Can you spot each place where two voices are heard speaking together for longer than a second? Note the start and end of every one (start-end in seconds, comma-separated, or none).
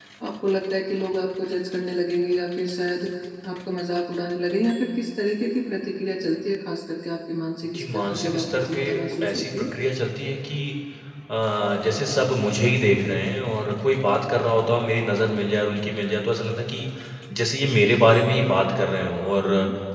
7.7-9.7